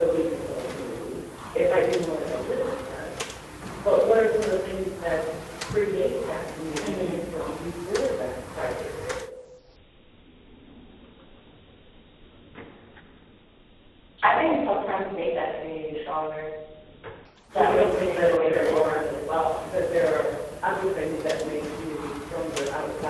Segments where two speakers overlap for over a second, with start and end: 17.5-19.1

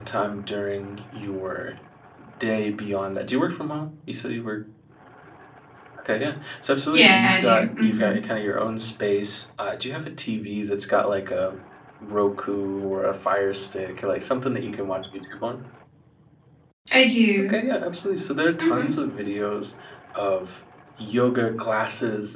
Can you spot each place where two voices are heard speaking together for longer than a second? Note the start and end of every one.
6.9-8.1

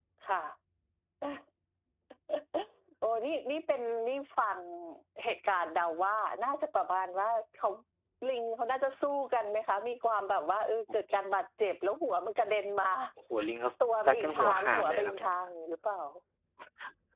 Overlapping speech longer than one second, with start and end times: 14.1-15.3

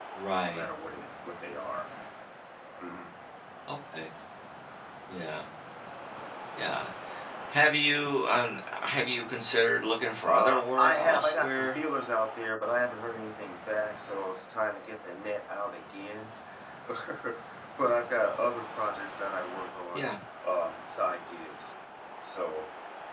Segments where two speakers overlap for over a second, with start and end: 10.3-11.8

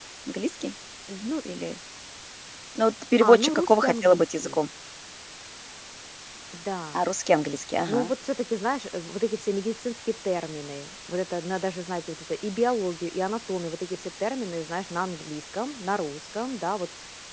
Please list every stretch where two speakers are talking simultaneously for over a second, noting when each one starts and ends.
3.2-4.6

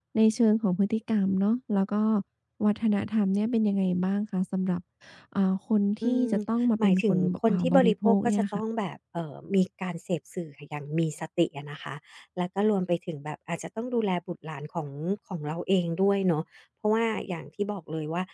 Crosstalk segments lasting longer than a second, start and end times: 6.8-8.6

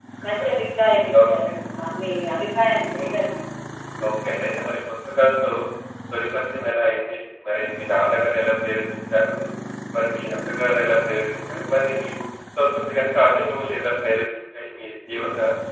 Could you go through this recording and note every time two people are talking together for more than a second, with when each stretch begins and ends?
none

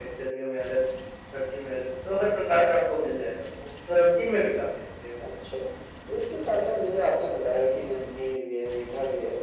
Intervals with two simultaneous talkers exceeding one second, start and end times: none

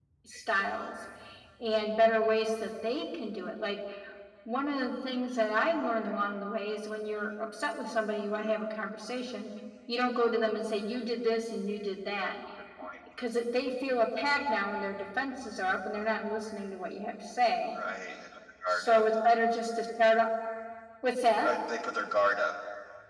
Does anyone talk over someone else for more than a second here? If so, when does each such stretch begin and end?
none

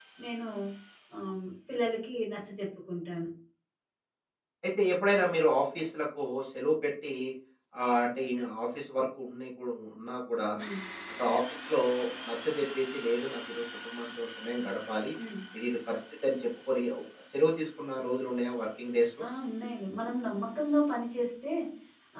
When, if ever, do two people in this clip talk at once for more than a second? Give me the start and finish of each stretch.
none

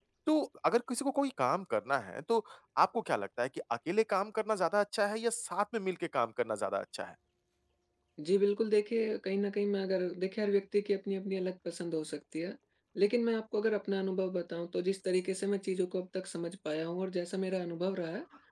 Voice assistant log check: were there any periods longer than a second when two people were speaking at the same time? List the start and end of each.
none

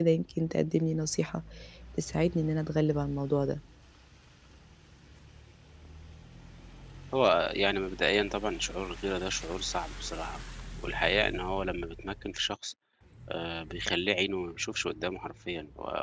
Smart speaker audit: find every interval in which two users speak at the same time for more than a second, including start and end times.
none

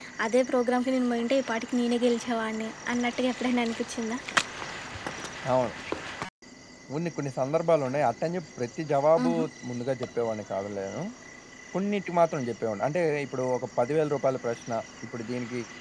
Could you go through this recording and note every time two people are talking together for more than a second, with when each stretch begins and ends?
none

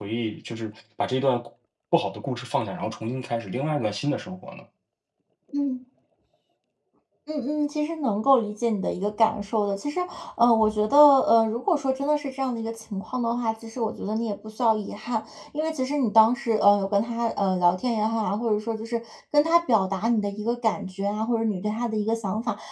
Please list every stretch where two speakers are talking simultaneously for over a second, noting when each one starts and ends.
none

